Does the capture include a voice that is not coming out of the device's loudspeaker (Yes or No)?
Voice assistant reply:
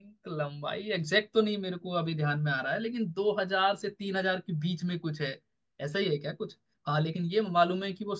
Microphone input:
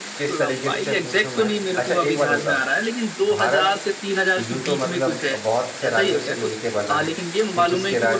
Yes